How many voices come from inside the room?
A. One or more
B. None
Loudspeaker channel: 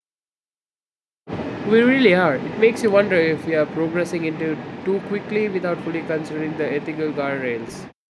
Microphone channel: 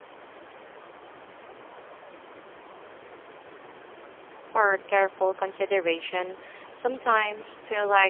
A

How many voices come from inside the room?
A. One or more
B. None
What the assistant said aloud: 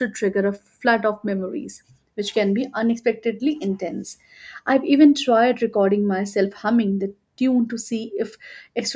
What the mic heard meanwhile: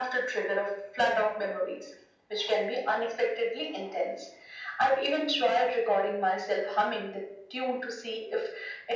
B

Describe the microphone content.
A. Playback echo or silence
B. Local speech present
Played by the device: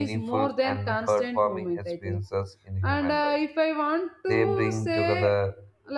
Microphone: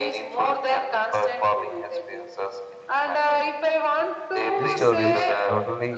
B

